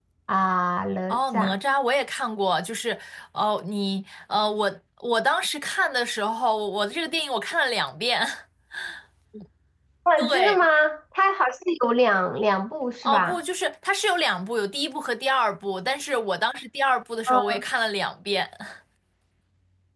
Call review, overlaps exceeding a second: none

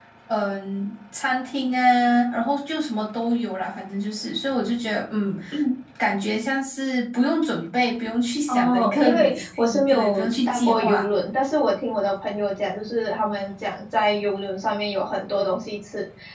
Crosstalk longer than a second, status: present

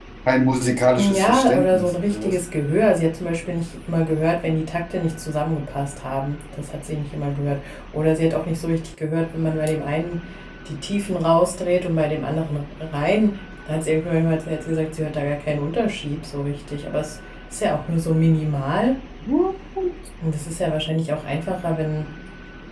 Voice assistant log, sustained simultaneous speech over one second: present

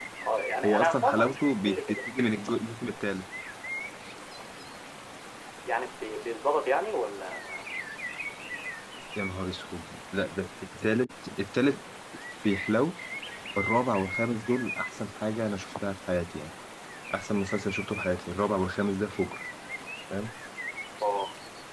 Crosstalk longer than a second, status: present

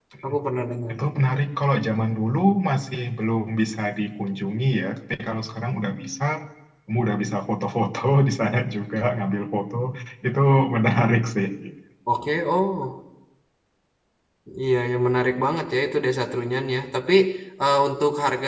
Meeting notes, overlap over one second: none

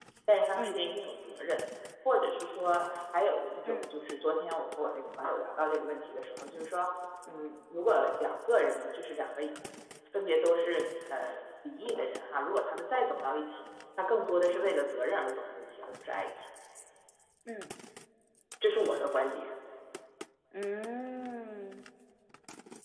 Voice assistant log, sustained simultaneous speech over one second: none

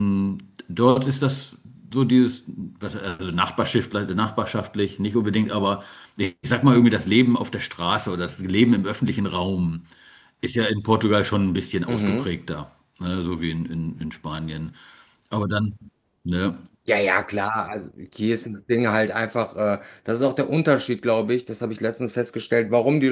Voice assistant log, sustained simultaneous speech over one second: none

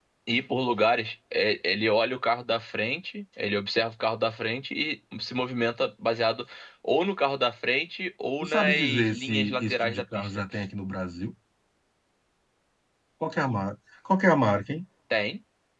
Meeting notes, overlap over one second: present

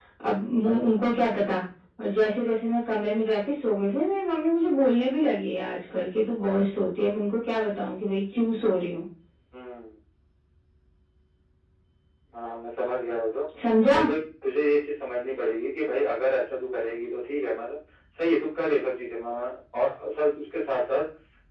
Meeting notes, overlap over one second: none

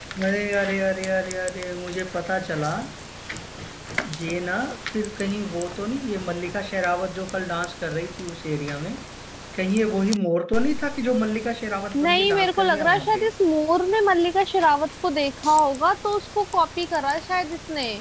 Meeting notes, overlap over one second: present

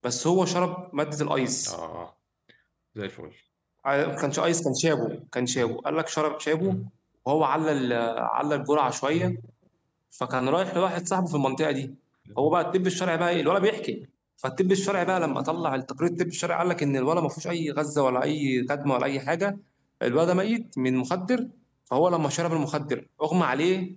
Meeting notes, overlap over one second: none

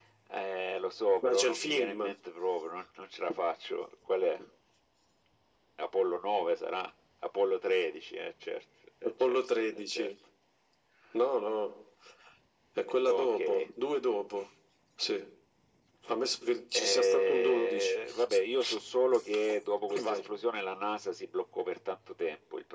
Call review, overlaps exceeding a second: present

